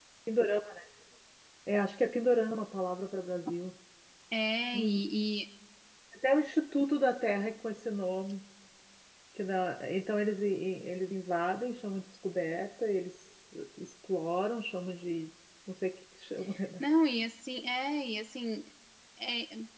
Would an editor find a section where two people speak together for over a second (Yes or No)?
No